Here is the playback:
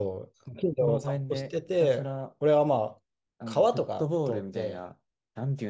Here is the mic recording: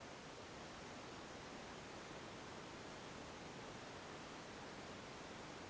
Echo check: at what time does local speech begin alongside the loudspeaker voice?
none

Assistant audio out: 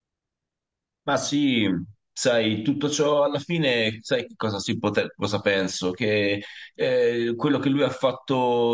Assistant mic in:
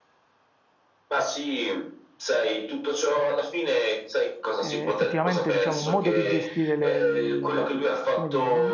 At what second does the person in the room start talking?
4.5 s

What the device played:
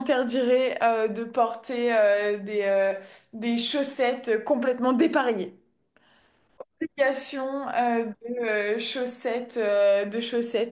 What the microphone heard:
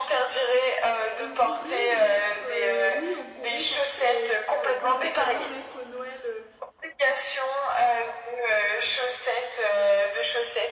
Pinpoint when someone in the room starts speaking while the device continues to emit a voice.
1.2 s

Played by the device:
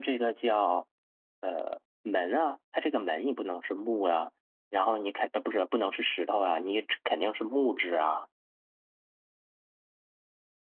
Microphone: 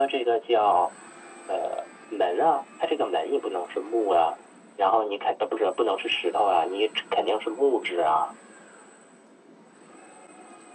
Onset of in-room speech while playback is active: none

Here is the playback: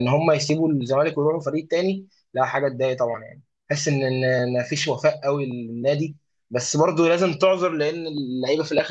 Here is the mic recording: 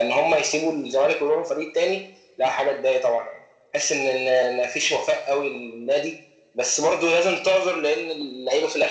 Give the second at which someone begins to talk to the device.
none

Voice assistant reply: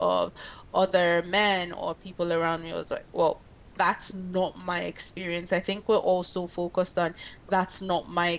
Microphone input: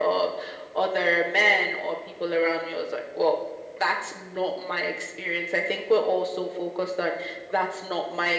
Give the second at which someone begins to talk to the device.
none

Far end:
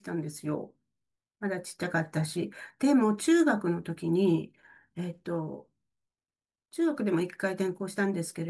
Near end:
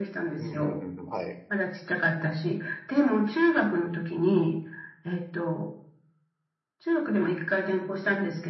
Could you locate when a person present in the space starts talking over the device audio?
0.4 s

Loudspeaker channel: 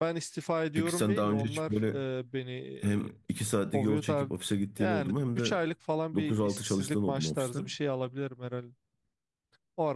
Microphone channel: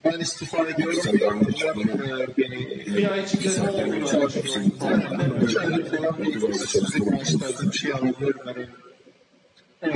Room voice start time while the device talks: 2.9 s

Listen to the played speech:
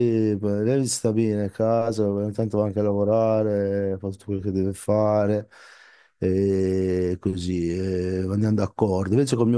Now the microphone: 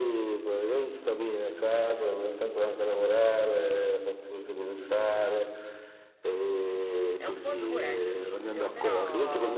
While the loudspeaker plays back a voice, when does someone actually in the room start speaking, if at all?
7.1 s

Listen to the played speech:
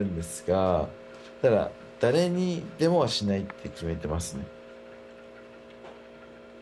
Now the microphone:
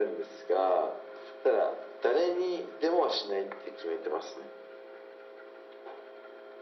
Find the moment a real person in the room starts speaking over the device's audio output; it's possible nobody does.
none

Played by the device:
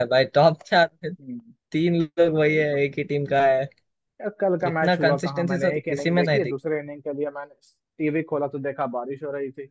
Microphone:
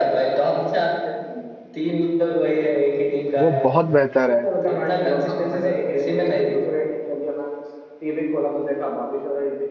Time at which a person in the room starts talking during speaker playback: 3.4 s

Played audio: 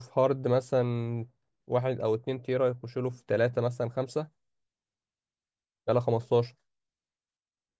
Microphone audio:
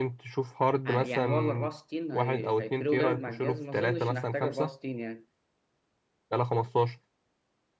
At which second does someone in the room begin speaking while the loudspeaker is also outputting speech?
0.8 s

